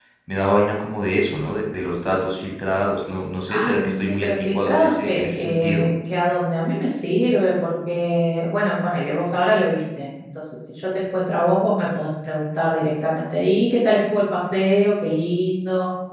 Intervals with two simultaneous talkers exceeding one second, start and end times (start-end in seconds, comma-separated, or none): 3.5-5.9